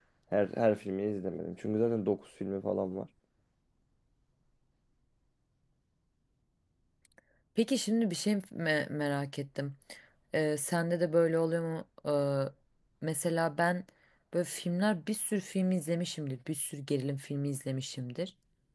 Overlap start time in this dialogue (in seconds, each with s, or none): none